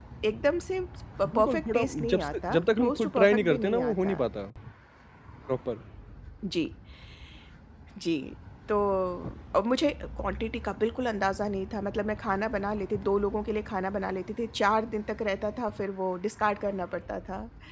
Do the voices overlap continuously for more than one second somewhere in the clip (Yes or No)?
Yes